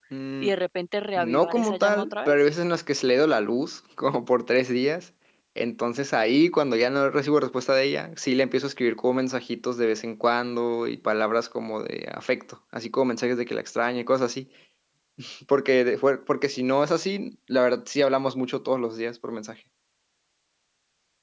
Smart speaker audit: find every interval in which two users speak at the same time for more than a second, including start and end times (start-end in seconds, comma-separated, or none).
1.2-2.4